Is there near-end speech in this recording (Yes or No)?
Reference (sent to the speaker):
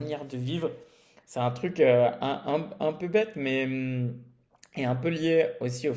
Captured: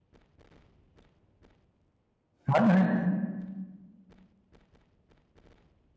Yes